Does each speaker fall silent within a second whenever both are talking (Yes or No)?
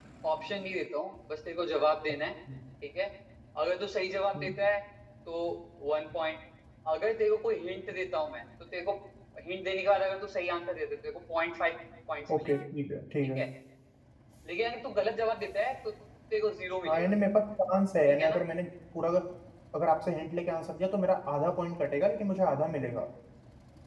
Yes